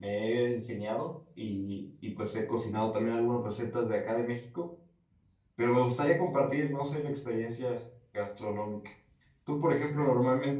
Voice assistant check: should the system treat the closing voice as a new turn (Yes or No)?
No